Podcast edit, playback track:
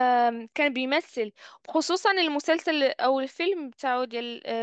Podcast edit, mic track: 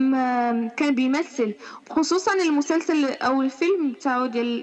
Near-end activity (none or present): none